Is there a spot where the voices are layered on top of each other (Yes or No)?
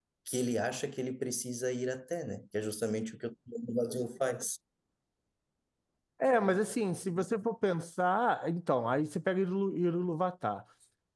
No